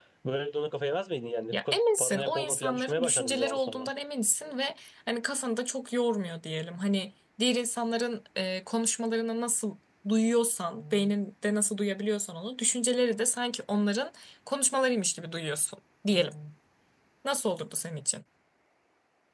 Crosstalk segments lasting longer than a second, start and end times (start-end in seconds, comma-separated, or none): 1.5-3.9